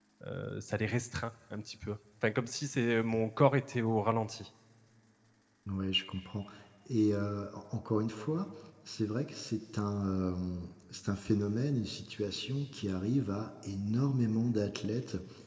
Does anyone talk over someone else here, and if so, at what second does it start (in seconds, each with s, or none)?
none